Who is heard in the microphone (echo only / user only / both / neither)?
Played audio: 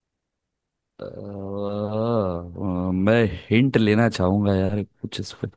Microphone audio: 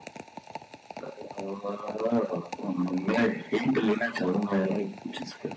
echo only